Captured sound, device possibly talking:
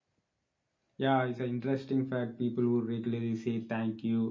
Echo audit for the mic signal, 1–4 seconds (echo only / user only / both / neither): user only